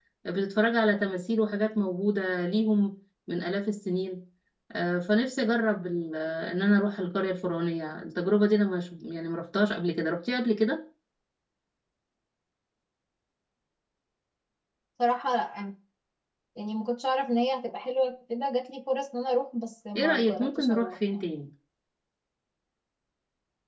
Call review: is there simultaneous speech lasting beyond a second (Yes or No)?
Yes